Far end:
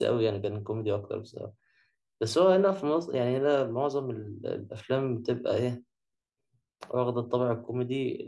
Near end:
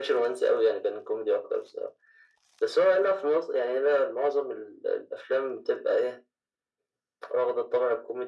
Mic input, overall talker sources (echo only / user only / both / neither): echo only